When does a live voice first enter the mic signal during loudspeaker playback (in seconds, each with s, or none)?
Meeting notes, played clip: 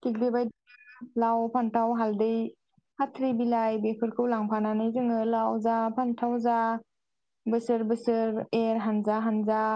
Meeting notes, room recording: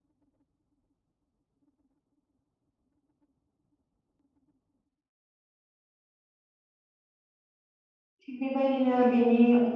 8.2 s